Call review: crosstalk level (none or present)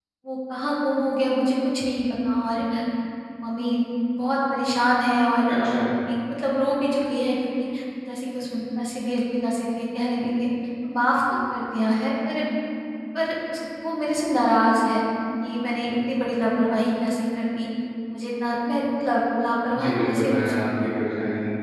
present